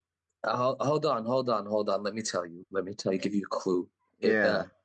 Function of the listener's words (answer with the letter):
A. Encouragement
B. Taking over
A